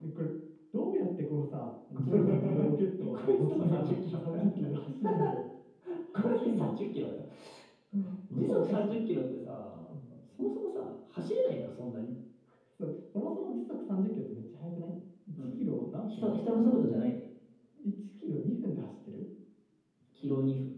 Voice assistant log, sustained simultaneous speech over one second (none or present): present